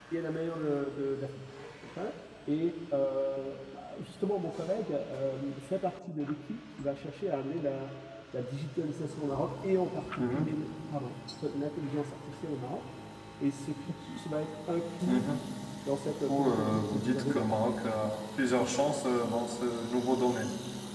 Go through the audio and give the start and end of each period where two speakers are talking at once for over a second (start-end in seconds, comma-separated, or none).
16.0-17.6